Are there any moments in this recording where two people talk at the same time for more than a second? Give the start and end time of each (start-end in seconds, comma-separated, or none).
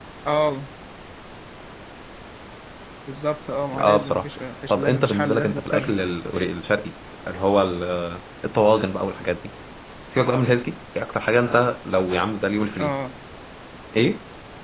4.7-6.0